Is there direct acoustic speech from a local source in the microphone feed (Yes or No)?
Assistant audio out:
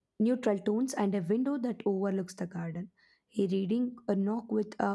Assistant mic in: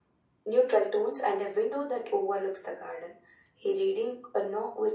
No